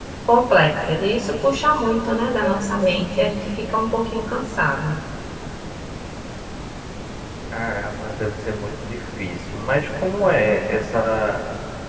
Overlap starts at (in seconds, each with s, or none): none